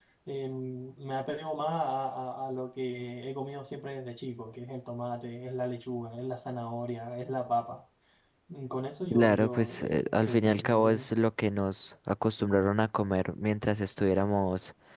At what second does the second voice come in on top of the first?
9.1 s

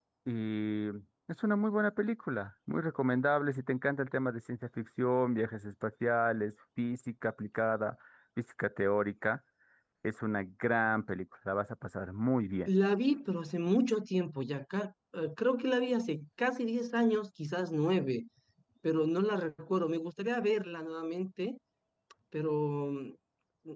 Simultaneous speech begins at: none

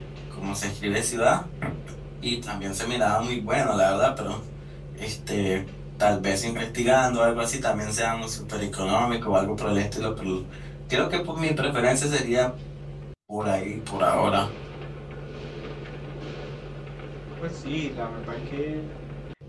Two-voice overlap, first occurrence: none

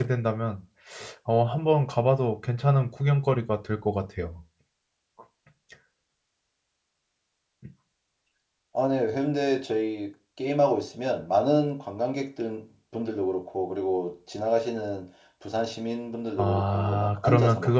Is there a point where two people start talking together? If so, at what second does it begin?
16.4 s

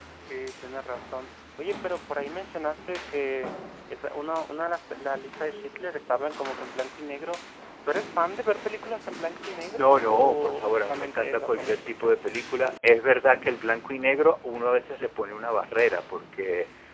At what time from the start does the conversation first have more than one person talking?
9.7 s

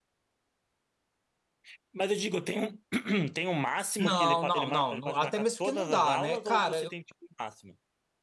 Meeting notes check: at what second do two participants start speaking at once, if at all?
4.0 s

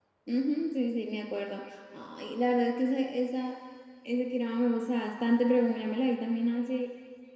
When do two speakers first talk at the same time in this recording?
none

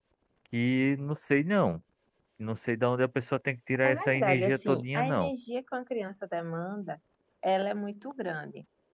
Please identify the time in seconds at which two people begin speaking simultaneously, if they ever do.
3.8 s

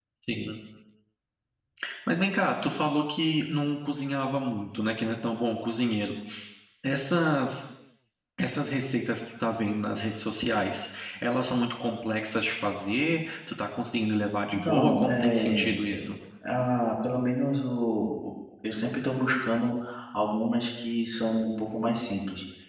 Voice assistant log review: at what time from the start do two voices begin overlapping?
14.5 s

